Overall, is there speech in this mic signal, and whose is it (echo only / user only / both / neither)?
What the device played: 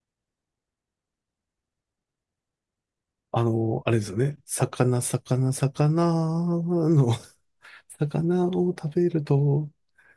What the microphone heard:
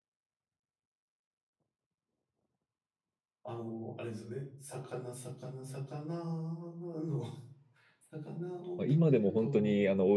both